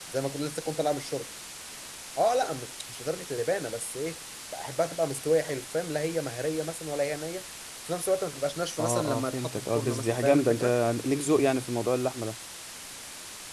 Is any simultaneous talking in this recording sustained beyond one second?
Yes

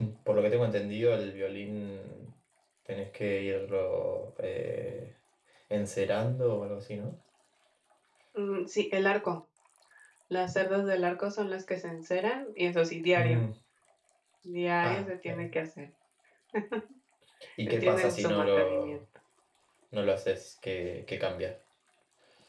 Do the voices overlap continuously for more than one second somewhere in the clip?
Yes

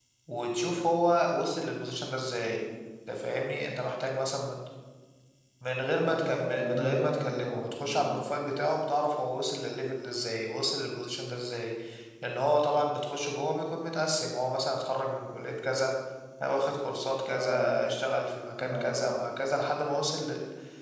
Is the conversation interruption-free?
No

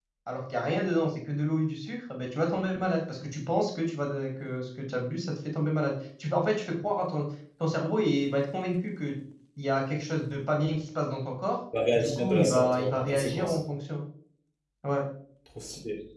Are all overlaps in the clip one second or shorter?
No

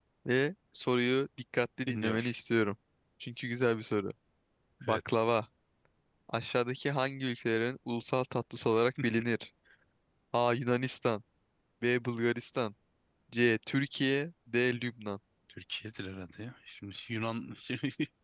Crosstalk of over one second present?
No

